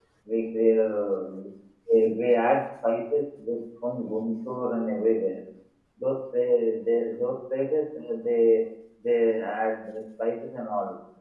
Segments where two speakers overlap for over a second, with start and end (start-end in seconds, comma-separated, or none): none